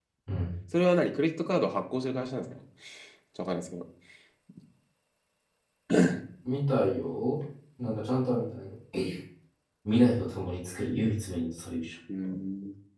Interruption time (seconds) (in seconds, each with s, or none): none